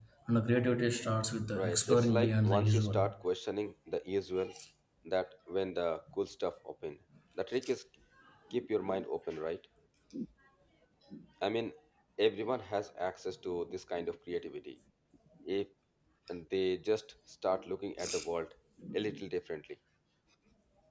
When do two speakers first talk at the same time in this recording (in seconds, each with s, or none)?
1.5 s